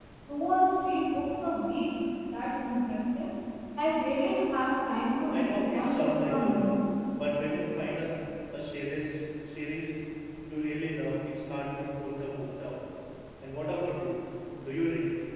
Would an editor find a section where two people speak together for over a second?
Yes, from 5.3 s

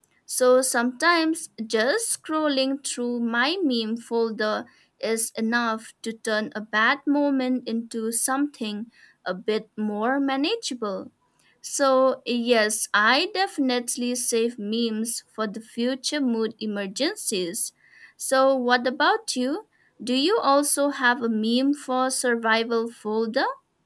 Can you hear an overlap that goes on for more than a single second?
No

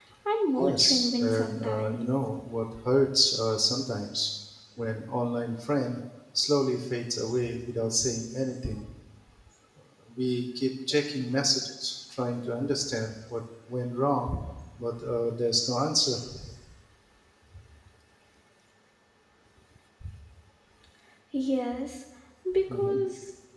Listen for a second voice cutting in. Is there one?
Yes, from 0.6 s

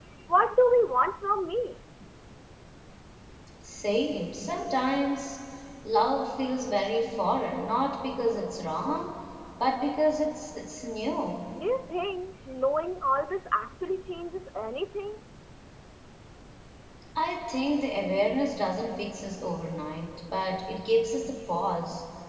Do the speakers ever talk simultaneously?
No

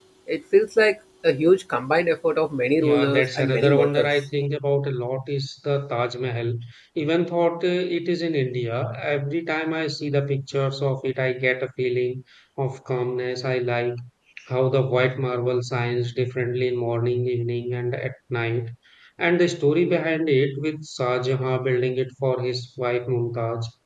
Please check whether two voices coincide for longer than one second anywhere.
Yes, from 2.8 s

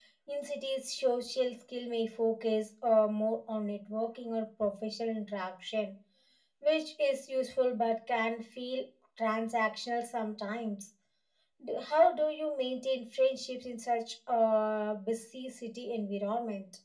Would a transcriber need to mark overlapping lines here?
No

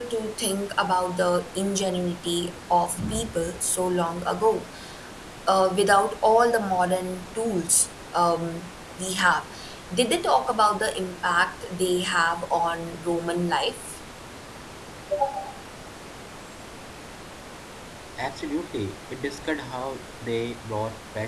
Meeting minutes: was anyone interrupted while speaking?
No

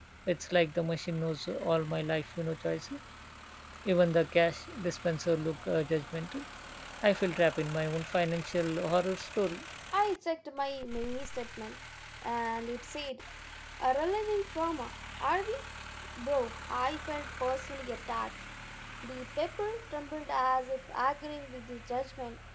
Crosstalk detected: No

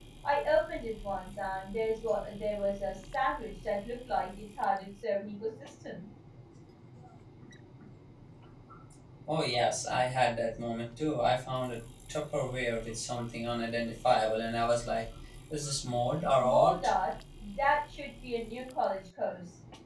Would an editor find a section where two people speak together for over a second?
No

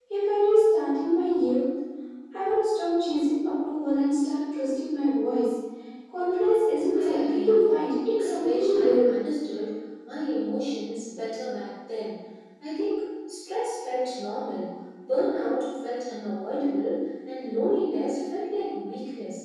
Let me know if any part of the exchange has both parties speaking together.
Yes, from 6.9 s

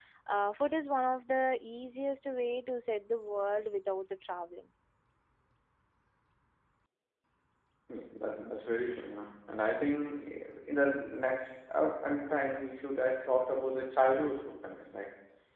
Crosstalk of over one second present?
No

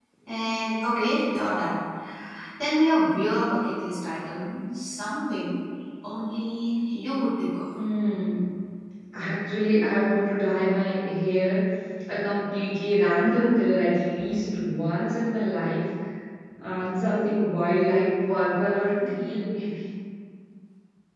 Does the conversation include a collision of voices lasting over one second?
No

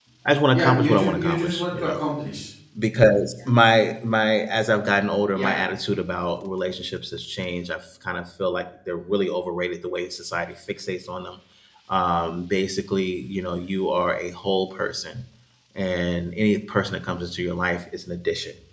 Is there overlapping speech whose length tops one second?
Yes, from 0.5 s

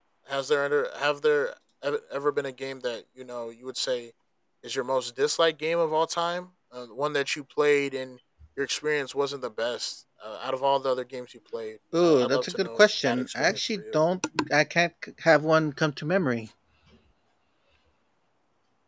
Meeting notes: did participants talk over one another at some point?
Yes, from 11.9 s

